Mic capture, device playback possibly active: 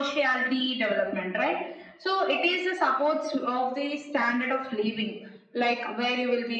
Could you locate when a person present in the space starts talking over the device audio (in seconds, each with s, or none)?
none